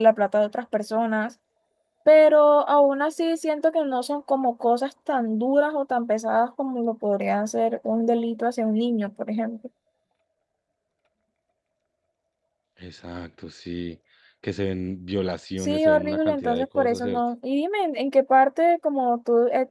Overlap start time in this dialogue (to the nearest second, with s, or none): 16 s